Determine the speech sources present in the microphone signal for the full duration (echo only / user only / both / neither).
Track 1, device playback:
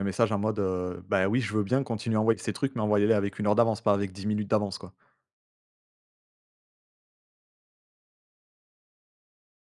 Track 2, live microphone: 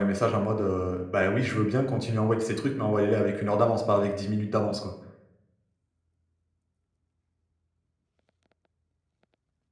echo only